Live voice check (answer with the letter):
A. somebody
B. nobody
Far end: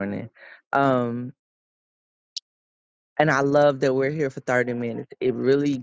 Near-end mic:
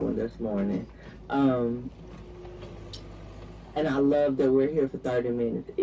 B